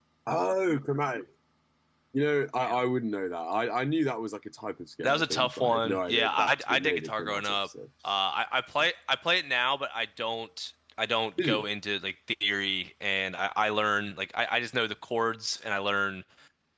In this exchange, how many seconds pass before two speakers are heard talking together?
5.0 s

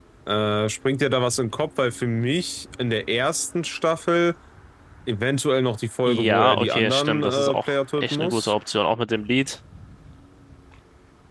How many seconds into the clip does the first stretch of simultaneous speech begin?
6.1 s

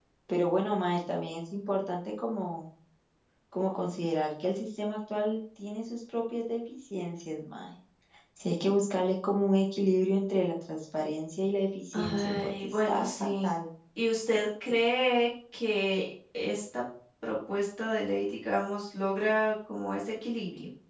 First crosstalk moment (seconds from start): 11.9 s

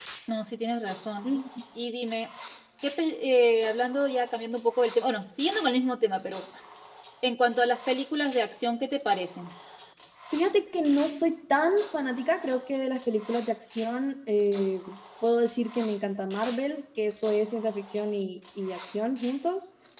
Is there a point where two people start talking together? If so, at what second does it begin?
none

